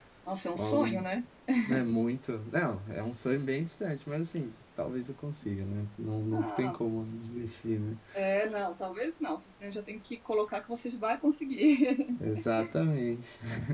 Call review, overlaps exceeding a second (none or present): none